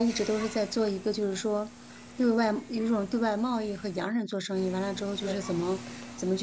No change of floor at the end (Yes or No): Yes